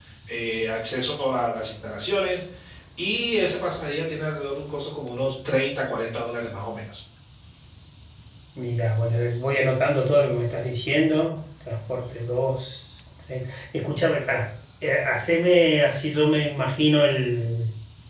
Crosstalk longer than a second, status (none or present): none